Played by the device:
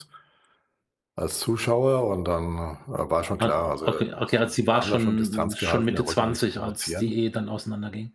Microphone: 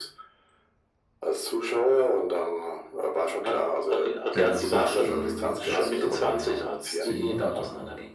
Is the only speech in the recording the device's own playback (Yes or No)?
No